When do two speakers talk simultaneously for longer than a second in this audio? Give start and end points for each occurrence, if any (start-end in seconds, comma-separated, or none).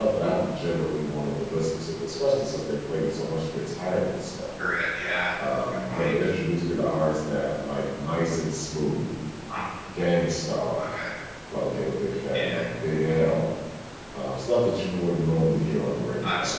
none